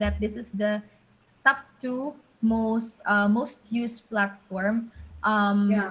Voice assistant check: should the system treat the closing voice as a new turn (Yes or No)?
No